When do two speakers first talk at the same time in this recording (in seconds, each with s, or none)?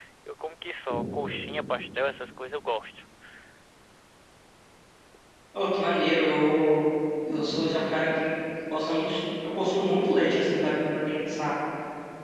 none